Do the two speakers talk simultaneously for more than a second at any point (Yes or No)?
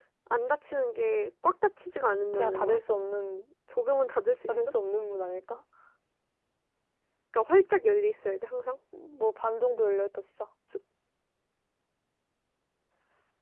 No